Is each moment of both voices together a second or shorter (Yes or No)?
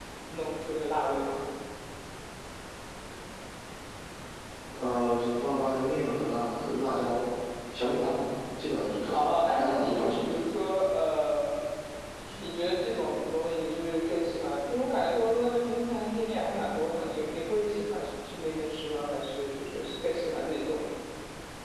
No